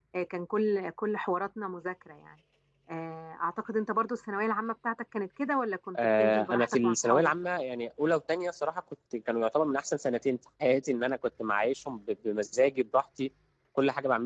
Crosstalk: present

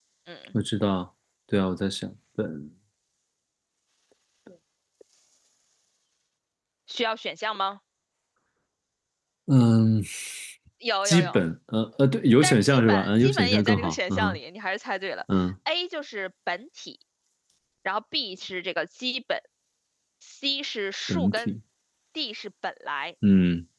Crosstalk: present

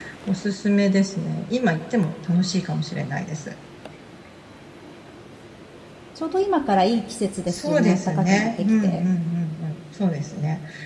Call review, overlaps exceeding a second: present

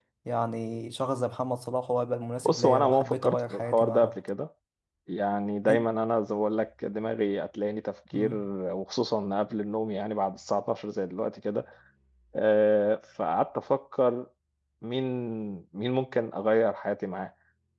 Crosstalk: present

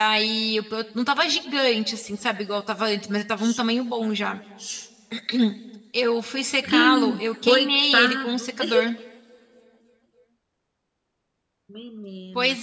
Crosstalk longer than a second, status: present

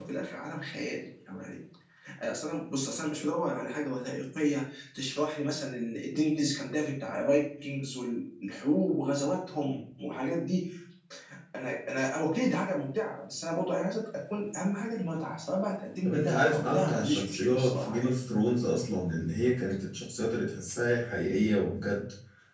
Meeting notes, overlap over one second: present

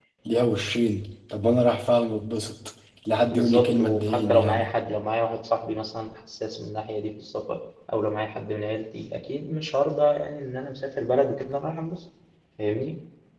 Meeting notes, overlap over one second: present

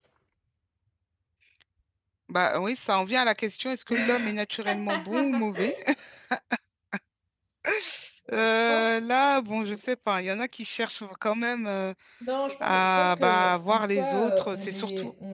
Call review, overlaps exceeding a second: present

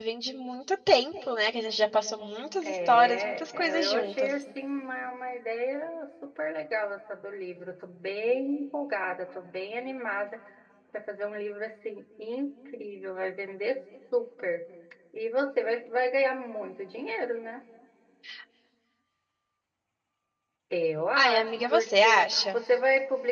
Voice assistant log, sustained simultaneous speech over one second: present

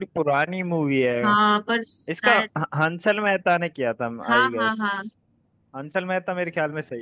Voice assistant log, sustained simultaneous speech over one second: none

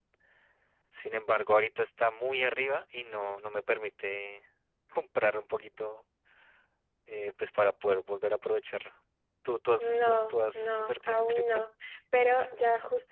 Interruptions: present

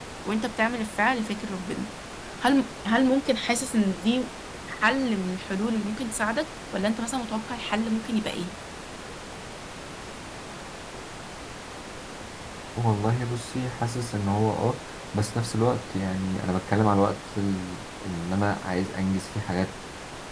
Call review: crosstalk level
none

